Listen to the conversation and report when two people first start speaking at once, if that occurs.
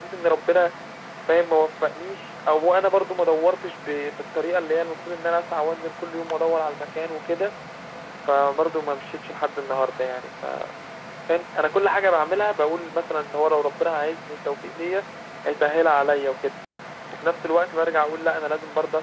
none

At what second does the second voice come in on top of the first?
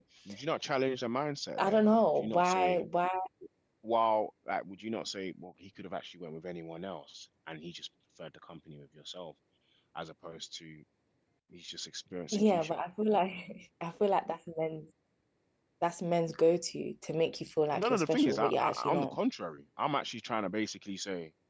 1.6 s

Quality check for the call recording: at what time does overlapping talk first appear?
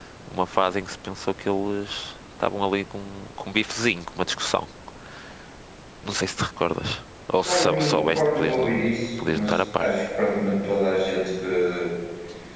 7.4 s

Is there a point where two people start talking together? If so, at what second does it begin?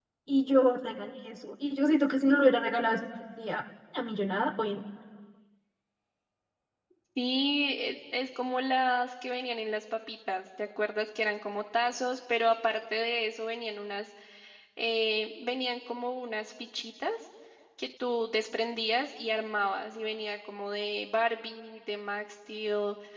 none

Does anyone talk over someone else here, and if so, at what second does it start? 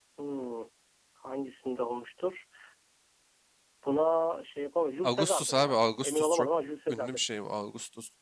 5.0 s

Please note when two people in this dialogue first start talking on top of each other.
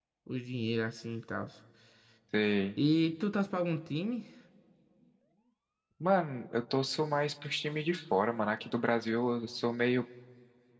none

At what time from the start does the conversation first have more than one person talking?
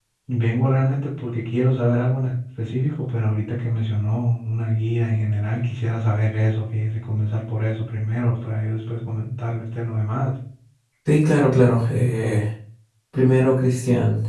none

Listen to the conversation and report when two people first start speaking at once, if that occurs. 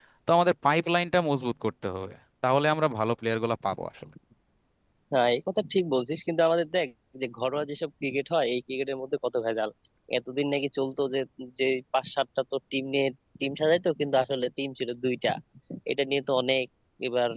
none

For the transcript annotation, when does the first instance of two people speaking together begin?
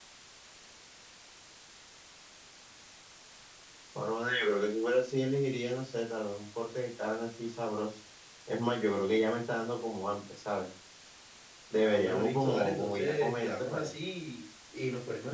11.8 s

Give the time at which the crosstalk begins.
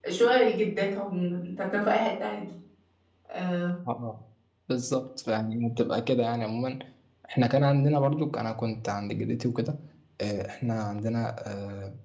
none

